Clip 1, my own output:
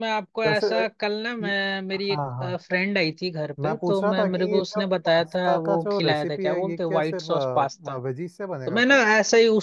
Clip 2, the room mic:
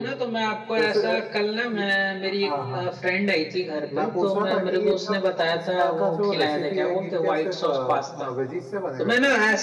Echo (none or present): present